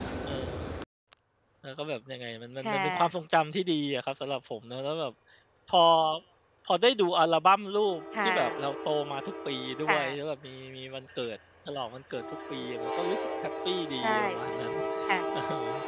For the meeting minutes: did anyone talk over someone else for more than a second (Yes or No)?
No